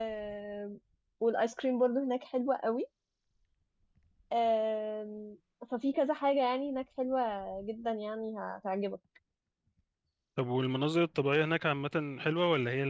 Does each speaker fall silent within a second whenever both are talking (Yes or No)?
Yes